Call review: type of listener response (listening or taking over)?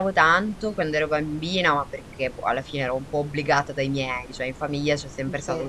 listening